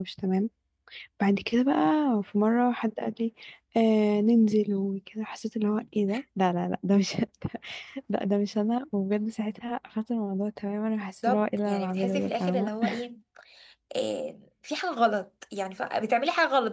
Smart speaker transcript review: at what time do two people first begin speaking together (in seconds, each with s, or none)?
11.2 s